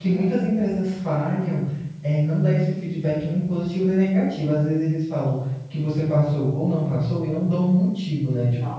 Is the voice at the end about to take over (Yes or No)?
No